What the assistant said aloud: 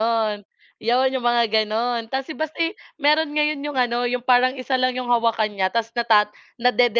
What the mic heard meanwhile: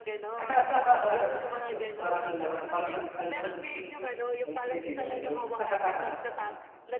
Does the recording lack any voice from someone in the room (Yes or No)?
No